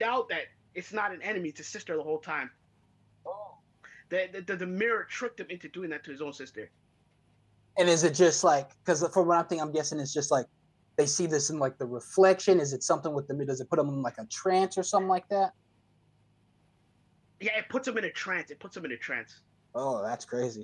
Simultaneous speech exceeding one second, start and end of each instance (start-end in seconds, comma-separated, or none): none